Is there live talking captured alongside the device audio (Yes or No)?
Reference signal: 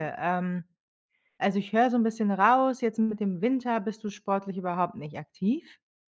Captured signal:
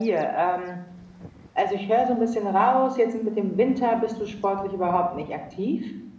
No